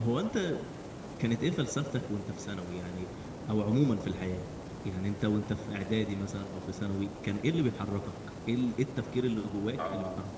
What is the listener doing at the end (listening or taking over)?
taking over